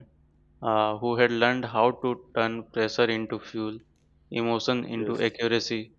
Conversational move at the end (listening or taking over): listening